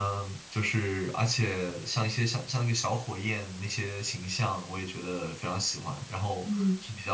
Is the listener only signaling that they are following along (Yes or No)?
Yes